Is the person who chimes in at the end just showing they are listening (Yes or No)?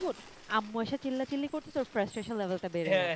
No